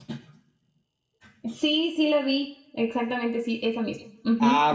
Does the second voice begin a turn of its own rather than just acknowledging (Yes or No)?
Yes